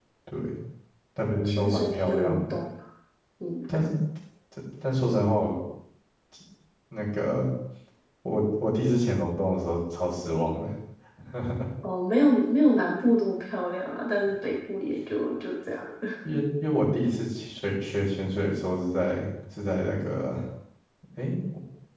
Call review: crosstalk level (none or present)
present